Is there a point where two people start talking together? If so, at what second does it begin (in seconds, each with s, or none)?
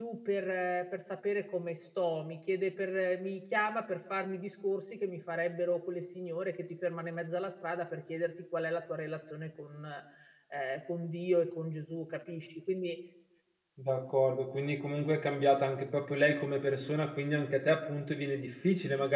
none